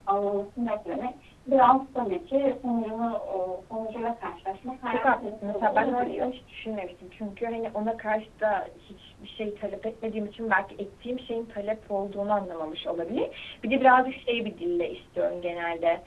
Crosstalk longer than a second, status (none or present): present